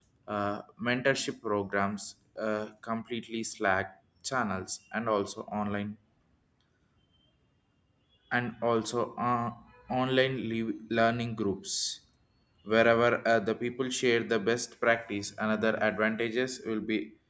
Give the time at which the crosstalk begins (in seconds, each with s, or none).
none